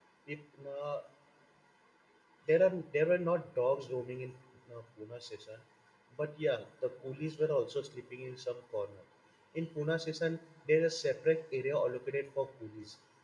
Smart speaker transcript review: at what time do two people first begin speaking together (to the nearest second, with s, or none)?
none